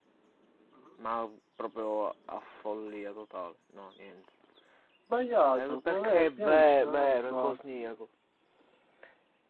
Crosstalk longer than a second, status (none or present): present